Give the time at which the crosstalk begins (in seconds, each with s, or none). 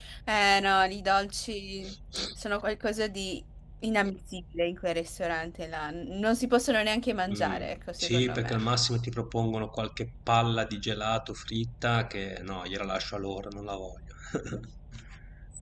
7.3 s